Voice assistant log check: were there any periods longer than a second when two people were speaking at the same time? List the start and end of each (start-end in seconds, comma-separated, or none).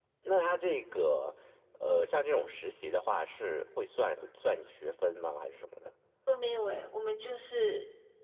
none